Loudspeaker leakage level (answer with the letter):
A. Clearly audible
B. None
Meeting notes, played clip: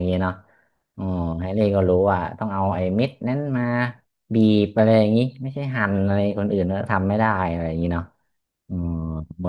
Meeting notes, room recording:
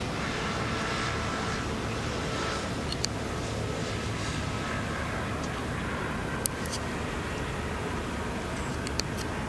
B